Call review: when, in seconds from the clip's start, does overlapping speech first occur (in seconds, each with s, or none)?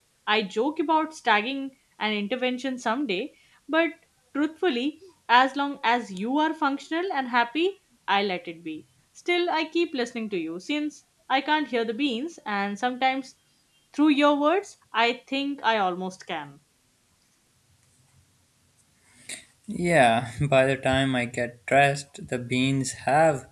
none